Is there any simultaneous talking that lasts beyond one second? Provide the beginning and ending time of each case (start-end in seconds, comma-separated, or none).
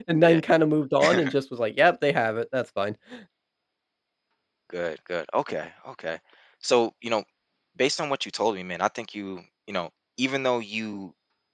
none